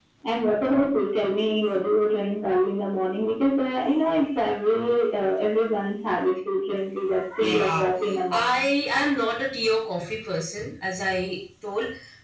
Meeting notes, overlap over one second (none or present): none